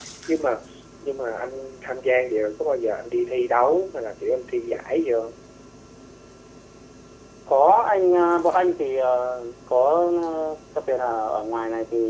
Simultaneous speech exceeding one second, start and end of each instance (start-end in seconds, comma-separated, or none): none